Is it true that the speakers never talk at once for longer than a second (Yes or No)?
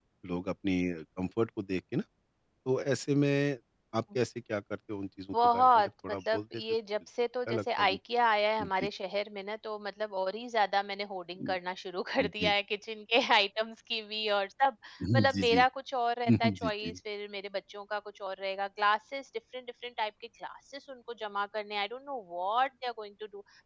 No